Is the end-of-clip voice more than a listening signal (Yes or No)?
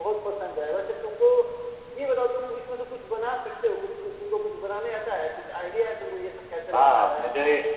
Yes